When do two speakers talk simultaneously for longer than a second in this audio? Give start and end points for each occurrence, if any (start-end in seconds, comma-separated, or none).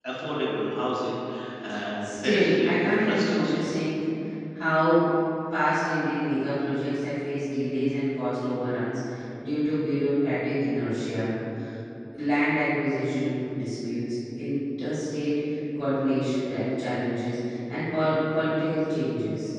2.0-3.8